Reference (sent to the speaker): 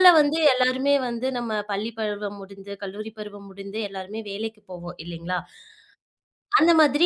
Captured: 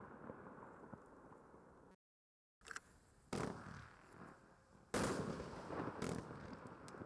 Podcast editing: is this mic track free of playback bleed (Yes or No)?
Yes